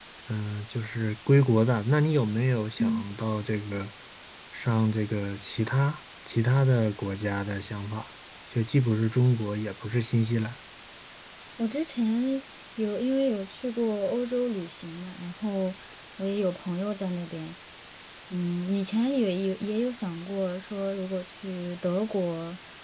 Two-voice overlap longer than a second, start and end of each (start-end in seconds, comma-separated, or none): none